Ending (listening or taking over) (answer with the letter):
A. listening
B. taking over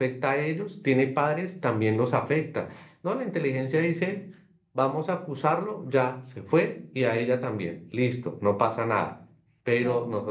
A